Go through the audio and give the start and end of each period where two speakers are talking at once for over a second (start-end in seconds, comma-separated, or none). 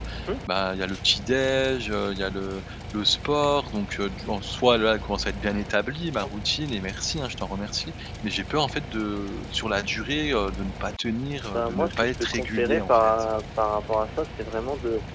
11.5-13.1